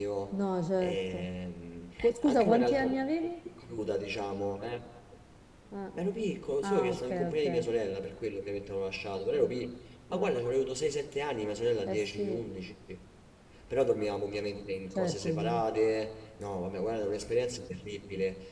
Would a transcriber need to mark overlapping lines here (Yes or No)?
Yes